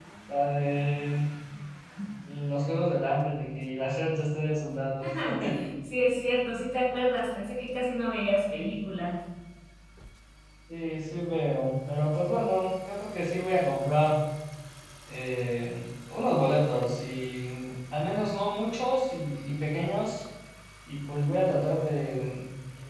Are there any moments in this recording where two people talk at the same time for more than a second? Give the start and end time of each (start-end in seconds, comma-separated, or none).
none